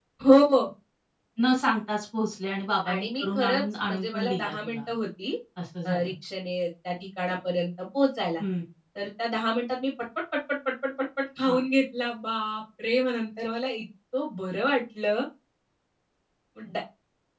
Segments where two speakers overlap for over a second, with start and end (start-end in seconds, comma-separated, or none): 2.9-4.8